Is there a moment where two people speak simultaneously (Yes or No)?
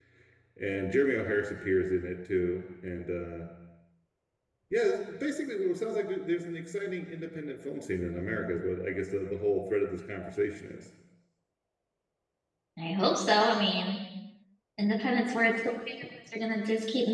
No